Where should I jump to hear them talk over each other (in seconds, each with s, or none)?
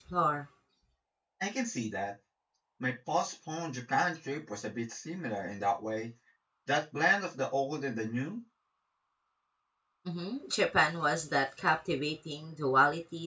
none